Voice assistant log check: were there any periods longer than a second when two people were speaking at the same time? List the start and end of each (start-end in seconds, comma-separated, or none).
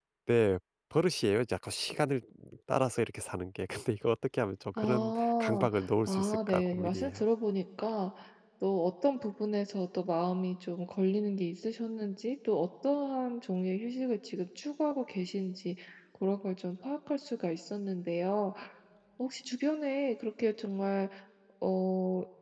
4.8-7.2